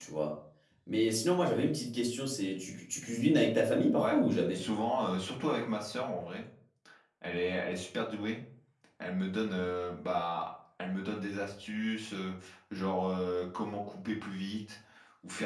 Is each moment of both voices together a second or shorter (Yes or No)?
Yes